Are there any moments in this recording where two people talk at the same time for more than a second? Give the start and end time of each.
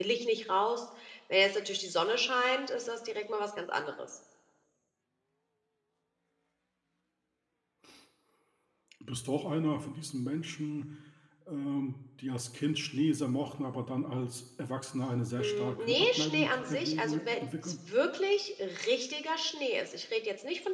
15.4-17.7

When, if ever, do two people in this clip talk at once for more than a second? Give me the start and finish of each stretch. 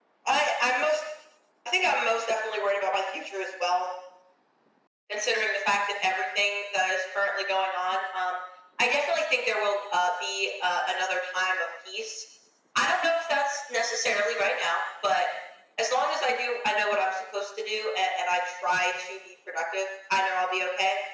none

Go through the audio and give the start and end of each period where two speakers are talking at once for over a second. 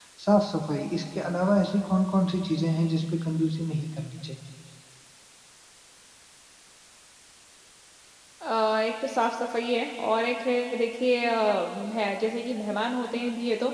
none

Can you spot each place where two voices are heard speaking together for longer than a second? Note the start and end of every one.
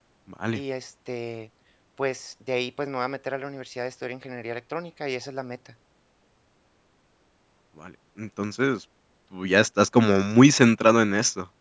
none

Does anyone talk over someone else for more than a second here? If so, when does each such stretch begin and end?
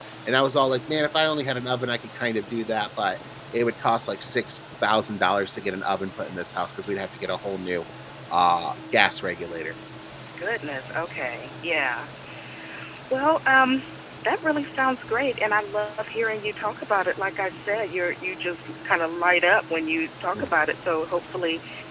none

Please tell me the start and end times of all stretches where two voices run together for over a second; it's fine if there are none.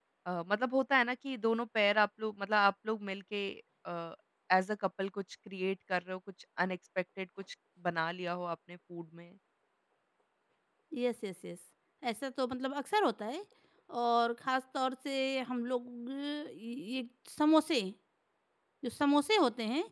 none

